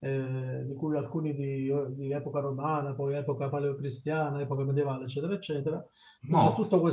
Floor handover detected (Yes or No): No